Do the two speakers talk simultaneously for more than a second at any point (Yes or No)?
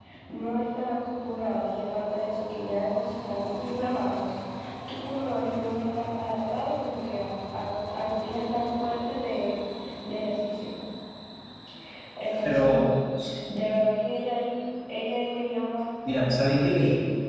No